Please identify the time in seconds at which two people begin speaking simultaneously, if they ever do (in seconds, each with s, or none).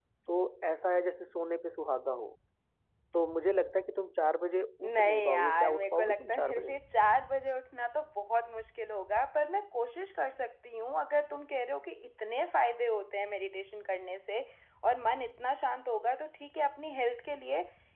4.8 s